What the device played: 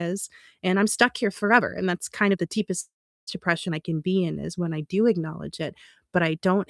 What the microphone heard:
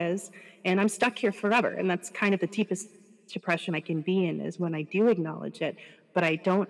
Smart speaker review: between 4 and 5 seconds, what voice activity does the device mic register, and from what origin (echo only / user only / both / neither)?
echo only